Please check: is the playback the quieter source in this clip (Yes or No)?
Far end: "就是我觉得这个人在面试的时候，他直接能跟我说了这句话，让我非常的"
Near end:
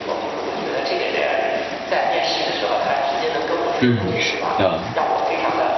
Yes